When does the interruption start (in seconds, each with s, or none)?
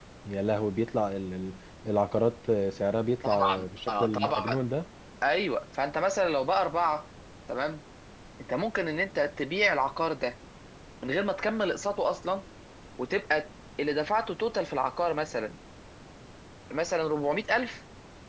3.2 s